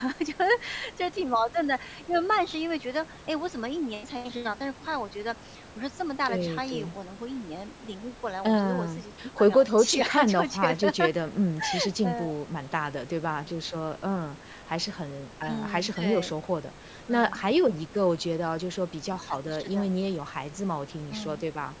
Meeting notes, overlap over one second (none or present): present